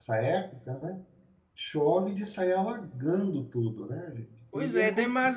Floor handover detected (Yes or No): Yes